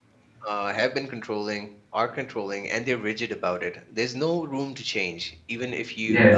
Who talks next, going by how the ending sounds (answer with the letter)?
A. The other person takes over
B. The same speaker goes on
B